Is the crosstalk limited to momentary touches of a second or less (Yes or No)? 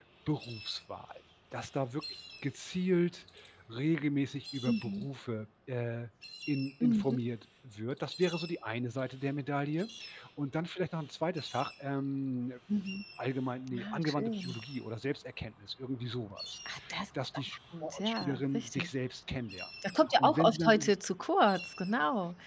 No